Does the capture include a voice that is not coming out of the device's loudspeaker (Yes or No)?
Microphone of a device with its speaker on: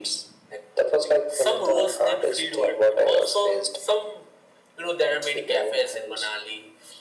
No